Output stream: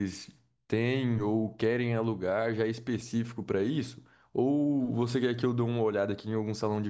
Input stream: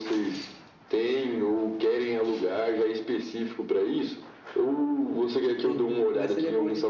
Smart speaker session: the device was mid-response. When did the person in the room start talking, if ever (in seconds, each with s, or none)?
5.5 s